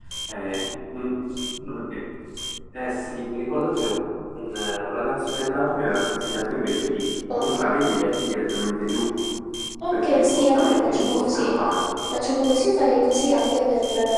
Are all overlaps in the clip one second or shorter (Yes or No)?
No